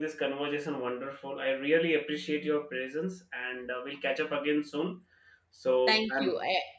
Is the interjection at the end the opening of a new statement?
Yes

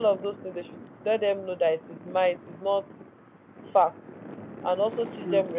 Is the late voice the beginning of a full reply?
No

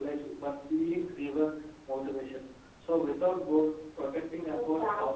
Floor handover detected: Yes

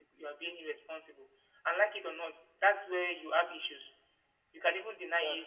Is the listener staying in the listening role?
Yes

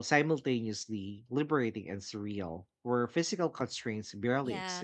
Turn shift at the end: Yes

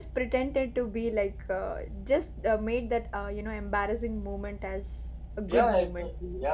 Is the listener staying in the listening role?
No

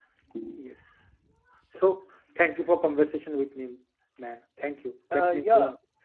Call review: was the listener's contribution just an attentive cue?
No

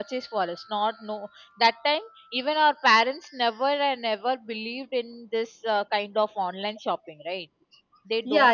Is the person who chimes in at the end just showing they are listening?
No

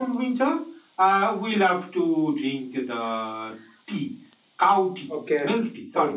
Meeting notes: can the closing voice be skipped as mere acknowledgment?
No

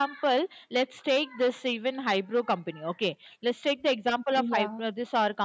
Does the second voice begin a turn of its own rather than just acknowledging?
No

